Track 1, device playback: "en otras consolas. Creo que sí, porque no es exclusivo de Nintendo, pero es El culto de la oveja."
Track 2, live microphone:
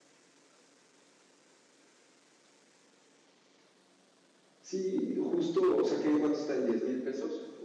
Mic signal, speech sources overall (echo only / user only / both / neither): user only